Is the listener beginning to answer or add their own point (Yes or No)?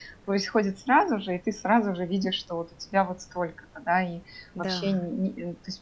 No